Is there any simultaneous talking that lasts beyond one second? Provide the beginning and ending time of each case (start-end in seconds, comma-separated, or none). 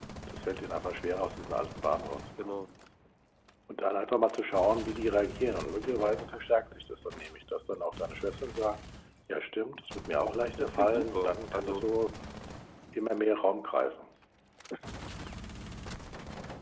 10.6-11.8